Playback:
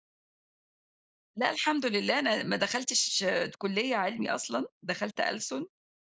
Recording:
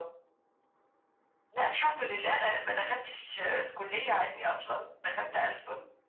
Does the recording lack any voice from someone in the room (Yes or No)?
Yes